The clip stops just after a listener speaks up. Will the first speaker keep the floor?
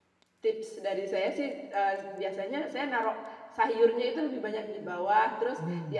Yes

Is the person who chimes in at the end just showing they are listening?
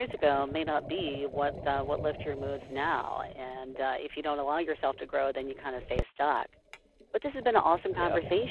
Yes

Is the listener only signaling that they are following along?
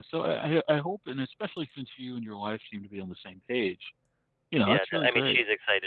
No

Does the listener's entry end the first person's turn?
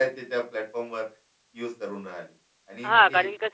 Yes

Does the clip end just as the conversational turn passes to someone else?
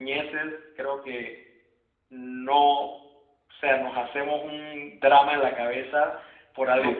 No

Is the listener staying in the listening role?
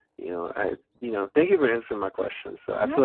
Yes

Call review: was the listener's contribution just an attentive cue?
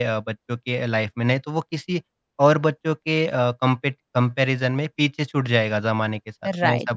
No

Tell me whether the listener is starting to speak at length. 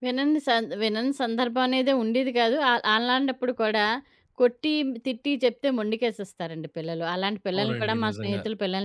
No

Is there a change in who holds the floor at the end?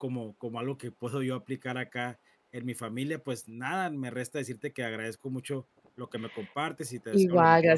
Yes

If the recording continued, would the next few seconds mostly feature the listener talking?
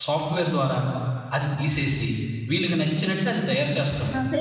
Yes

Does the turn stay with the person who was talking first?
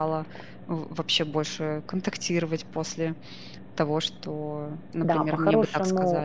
No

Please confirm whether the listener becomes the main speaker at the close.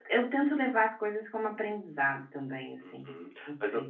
Yes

